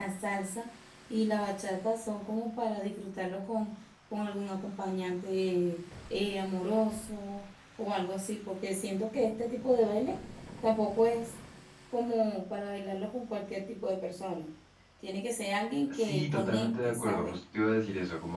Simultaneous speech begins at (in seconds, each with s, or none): 15.9 s